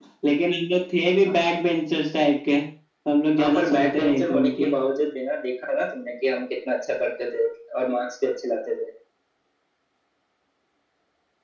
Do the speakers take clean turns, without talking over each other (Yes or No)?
No